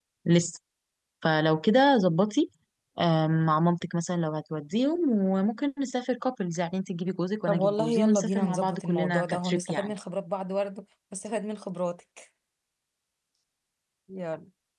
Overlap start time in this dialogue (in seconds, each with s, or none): 7.5 s